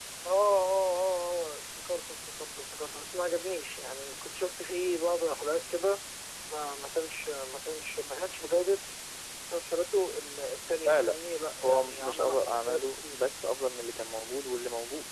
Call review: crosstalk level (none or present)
present